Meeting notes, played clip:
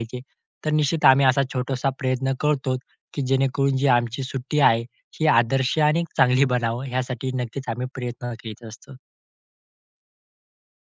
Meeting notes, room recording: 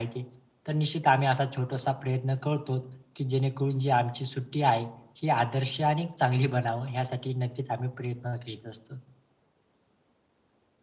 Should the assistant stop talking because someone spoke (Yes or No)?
No